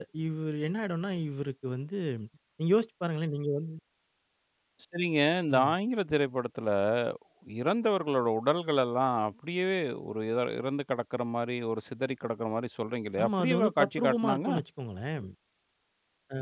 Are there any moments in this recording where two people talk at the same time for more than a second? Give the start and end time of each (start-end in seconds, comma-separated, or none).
13.2-14.5